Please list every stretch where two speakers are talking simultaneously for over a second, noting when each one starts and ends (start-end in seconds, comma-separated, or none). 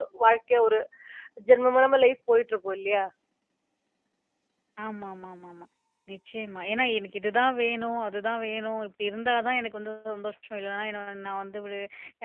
none